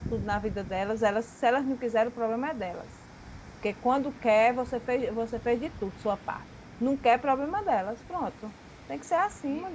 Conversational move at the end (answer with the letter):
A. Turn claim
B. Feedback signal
A